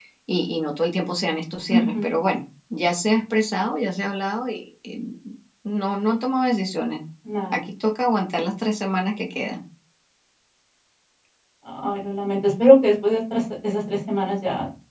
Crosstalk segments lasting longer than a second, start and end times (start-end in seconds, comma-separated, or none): none